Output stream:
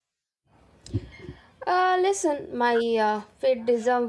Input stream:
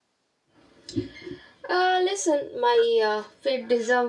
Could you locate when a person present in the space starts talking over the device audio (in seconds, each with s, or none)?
none